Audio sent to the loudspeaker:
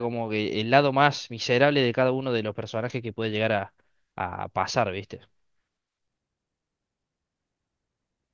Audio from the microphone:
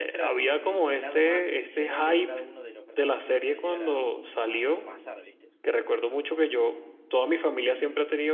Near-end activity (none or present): present